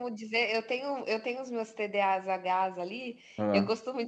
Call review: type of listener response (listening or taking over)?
listening